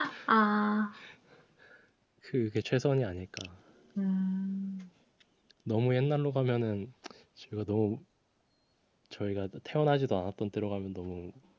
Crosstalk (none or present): none